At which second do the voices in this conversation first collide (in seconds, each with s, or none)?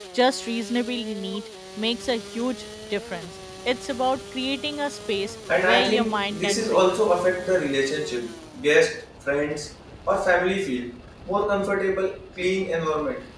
5.5 s